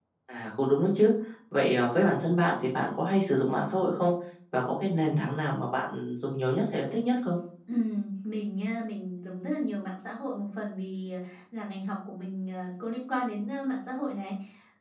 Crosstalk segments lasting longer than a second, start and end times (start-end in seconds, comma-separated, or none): none